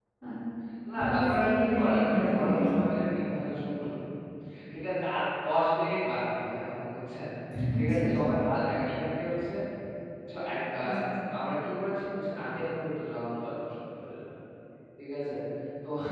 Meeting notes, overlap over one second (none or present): present